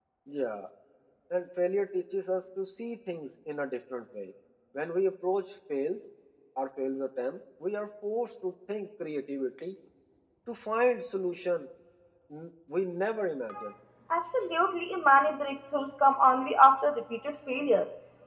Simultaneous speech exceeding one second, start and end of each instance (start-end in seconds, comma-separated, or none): none